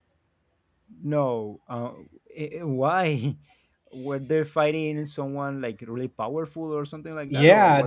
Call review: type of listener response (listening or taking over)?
taking over